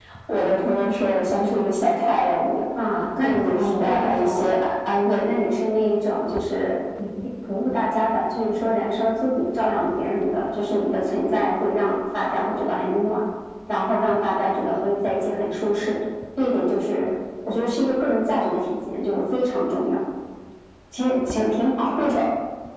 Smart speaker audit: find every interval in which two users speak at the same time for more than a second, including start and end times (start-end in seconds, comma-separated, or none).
3.2-4.6